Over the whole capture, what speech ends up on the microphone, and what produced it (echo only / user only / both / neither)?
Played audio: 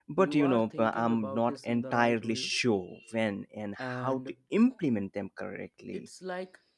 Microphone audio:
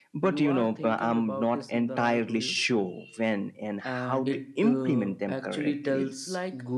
both